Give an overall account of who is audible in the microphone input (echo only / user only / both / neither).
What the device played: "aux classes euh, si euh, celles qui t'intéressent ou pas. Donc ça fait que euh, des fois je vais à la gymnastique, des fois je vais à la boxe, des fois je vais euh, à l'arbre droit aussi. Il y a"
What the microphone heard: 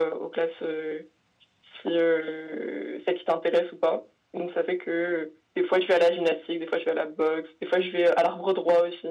echo only